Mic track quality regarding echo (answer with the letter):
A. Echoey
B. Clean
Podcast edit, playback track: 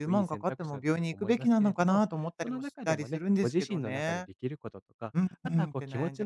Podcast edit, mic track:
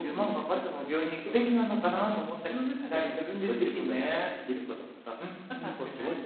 A